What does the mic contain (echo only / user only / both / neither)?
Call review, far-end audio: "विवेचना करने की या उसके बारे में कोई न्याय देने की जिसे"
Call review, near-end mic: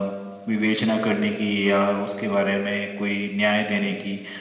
echo only